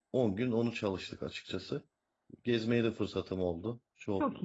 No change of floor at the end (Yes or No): Yes